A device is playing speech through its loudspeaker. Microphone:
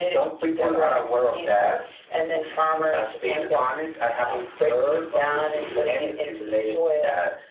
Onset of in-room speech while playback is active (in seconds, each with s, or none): none